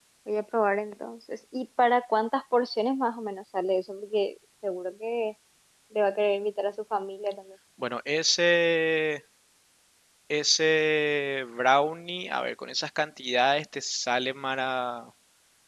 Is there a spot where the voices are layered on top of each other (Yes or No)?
No